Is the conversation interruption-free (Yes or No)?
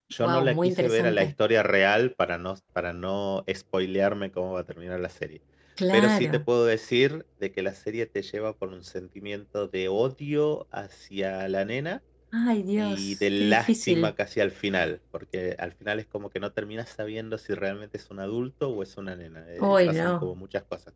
No